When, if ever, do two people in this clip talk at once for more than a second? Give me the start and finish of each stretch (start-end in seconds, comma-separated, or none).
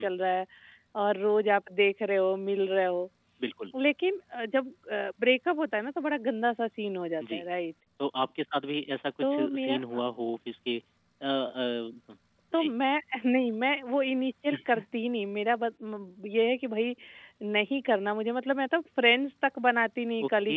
none